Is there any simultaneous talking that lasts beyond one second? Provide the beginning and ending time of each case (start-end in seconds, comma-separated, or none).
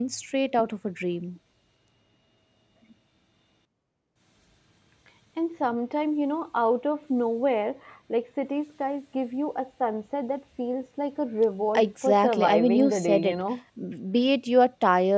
11.8-13.4